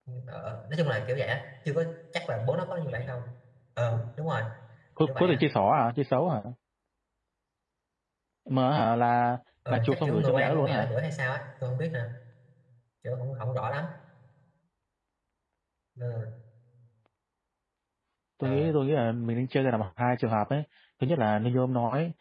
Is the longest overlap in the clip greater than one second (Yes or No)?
Yes